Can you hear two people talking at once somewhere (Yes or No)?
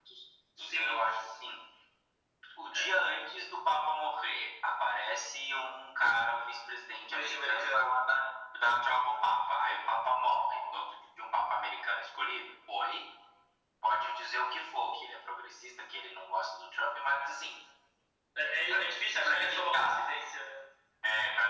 Yes